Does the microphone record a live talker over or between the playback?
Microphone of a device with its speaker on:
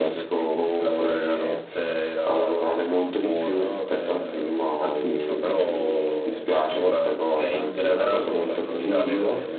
Yes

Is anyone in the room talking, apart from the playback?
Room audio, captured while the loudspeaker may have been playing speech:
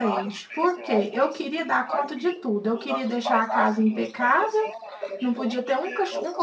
Yes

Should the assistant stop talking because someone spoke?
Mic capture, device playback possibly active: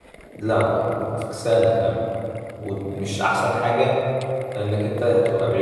Yes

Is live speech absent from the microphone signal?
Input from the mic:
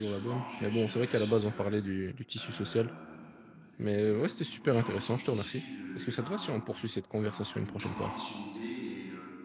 No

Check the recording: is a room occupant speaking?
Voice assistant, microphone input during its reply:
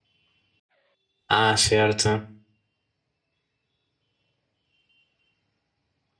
Yes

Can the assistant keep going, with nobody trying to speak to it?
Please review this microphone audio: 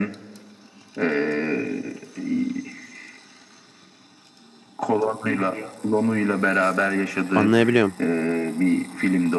No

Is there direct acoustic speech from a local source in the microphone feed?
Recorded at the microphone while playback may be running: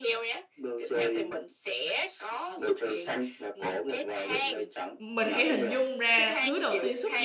Yes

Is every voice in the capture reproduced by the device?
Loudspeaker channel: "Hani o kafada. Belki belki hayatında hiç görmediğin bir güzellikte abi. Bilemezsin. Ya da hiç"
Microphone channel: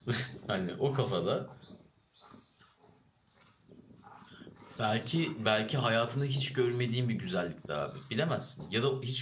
Yes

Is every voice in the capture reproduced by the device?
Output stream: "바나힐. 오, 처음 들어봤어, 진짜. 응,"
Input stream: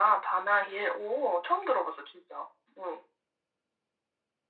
Yes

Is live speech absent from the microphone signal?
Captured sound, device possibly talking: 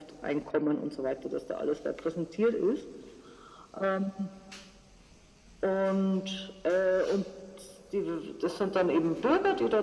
Yes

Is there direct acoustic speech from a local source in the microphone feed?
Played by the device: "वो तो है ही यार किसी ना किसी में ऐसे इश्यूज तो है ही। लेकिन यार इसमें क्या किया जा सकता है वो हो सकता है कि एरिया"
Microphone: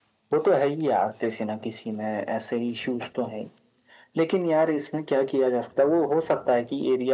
No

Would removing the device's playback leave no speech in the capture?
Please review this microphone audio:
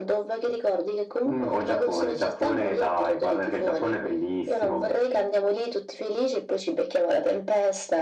Yes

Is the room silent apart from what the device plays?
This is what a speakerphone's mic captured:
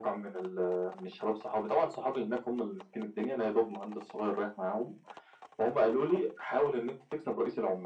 Yes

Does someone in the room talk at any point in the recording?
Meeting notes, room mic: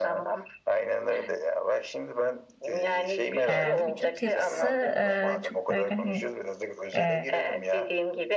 Yes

